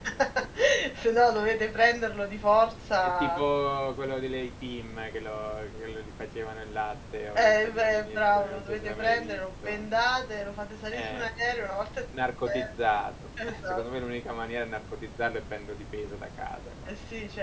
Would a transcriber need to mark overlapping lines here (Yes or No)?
Yes